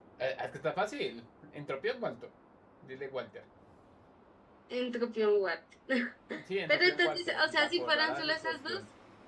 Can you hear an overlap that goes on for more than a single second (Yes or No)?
Yes